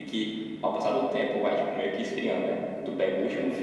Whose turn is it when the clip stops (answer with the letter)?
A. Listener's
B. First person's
B